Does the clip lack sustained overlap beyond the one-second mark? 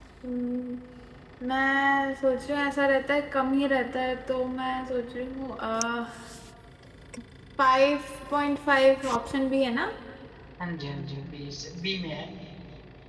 Yes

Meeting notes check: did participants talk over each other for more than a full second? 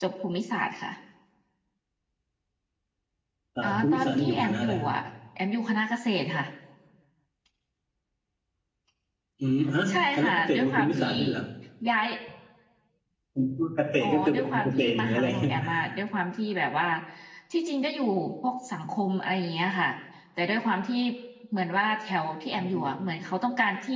Yes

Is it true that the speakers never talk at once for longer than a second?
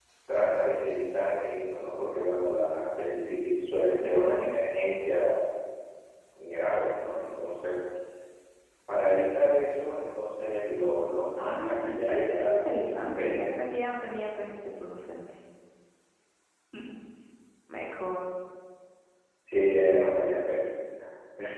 No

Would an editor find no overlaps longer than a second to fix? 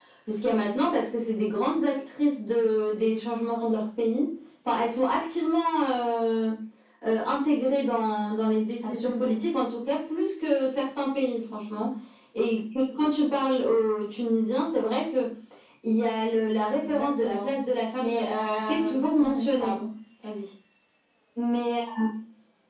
No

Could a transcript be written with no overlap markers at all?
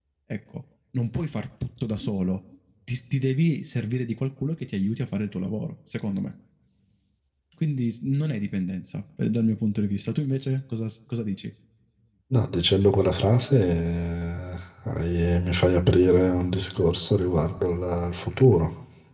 Yes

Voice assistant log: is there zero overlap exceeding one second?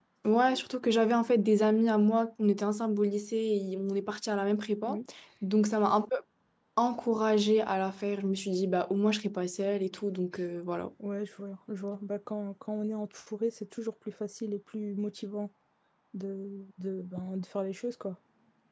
Yes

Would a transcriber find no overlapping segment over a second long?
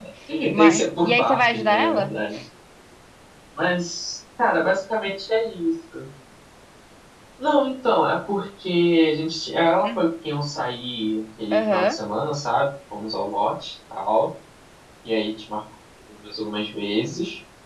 No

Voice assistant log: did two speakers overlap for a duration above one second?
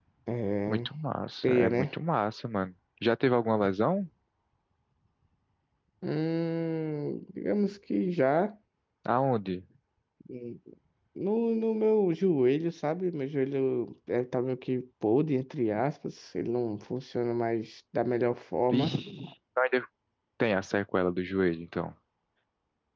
No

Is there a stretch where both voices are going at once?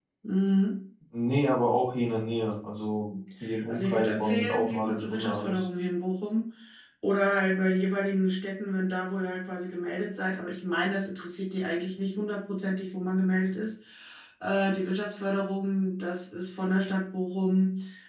Yes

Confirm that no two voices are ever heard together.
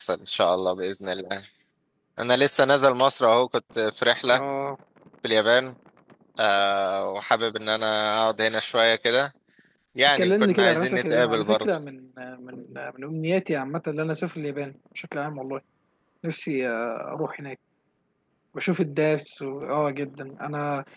No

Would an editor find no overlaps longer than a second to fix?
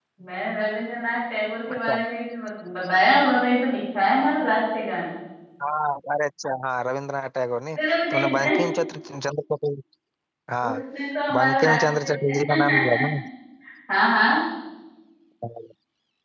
No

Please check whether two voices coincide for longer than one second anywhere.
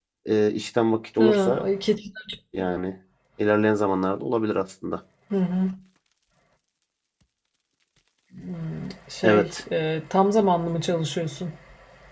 No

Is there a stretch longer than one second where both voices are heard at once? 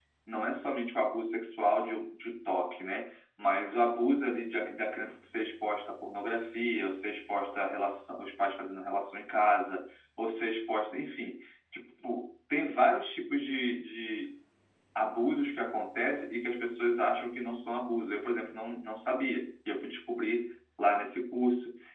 No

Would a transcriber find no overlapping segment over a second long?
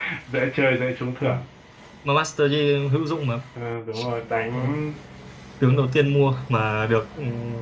Yes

